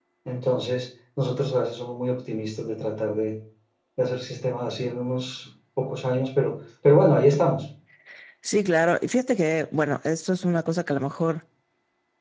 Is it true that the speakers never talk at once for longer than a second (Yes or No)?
Yes